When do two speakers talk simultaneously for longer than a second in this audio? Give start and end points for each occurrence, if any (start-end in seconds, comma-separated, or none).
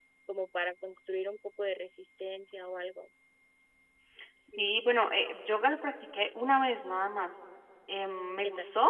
none